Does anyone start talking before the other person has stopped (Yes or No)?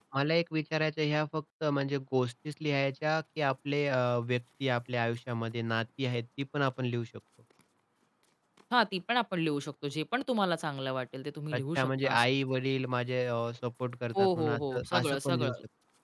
Yes